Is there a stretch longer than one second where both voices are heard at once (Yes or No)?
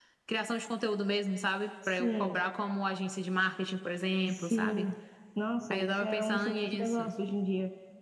Yes